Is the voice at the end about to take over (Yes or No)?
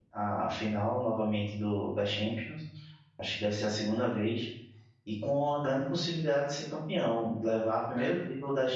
No